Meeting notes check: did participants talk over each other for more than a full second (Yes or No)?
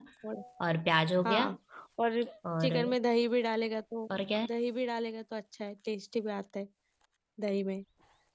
No